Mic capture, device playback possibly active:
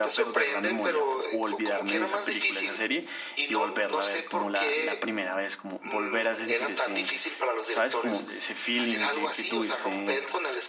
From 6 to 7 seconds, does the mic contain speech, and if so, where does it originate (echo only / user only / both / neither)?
both